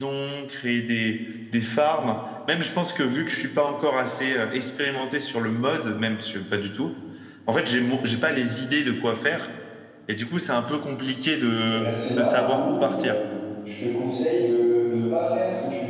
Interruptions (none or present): present